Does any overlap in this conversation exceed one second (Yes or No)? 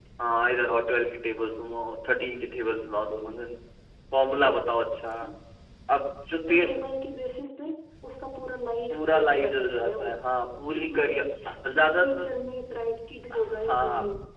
Yes